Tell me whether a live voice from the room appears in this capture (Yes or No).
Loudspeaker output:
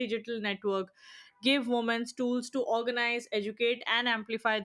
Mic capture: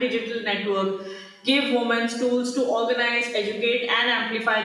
No